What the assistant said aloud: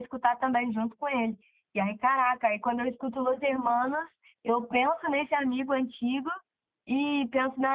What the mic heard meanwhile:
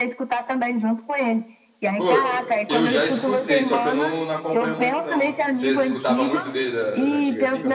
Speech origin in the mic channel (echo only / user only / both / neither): both